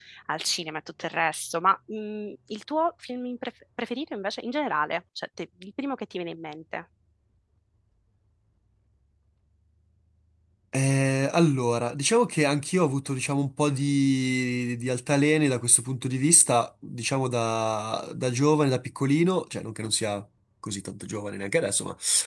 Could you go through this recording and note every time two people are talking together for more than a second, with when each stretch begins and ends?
none

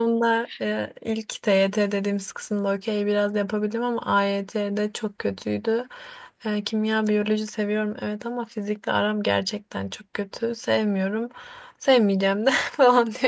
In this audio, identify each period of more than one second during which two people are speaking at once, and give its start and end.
none

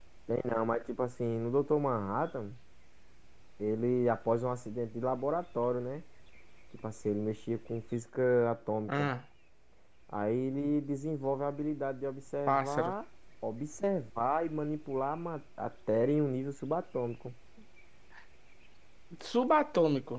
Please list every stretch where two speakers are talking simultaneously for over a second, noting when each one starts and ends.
none

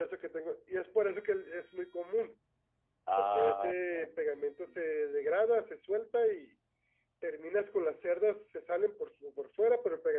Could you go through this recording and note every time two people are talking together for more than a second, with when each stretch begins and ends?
3.2-4.8

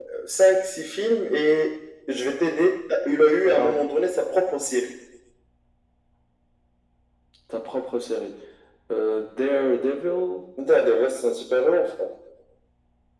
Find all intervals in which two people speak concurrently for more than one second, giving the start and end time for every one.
none

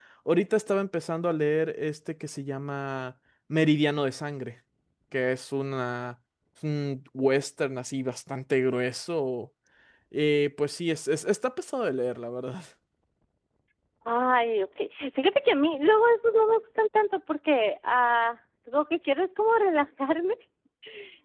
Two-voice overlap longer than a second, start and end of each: none

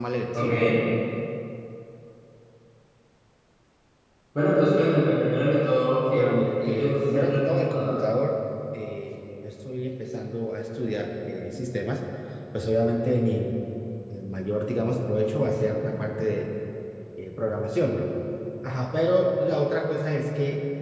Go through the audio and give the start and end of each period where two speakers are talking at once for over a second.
6.1-8.1

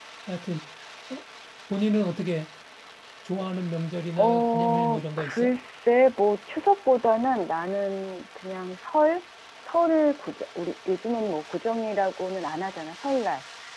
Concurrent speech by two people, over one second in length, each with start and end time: 4.2-5.5

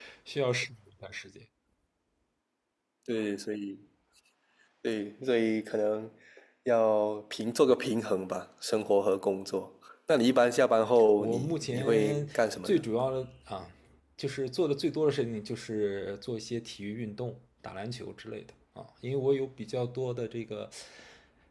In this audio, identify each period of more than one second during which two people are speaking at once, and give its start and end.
11.2-12.8

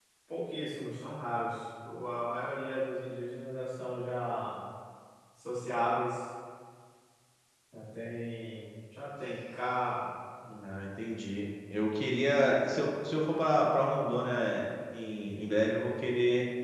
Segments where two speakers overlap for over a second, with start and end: none

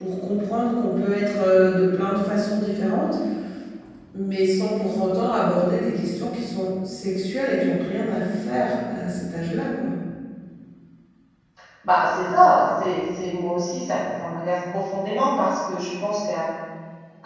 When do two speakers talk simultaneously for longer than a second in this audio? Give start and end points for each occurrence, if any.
none

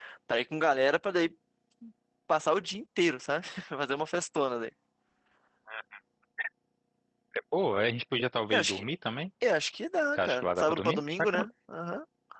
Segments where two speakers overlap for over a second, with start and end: 10.2-11.4

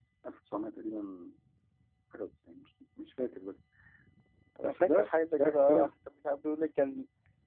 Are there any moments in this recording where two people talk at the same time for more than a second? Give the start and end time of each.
4.6-5.9

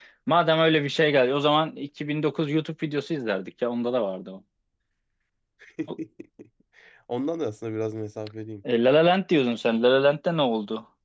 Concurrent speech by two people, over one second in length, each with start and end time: none

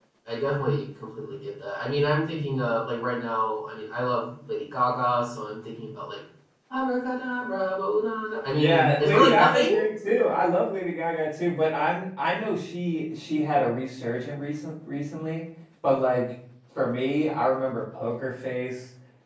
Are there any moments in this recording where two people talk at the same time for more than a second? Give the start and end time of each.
8.5-9.7

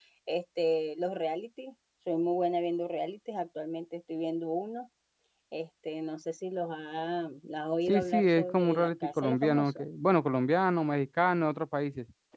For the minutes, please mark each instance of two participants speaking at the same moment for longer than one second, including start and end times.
7.9-9.8

